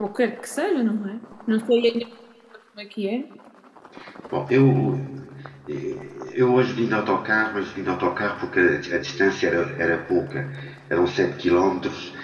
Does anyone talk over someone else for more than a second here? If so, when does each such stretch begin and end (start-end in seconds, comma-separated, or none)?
none